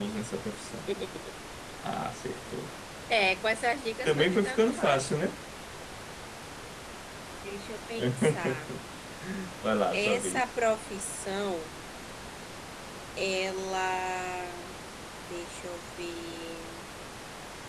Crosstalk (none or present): present